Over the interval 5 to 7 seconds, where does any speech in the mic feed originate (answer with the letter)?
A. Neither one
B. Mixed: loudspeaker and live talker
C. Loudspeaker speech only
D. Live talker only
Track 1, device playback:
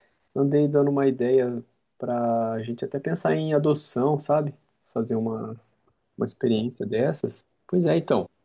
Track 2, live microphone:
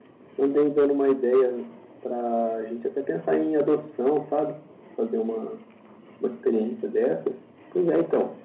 C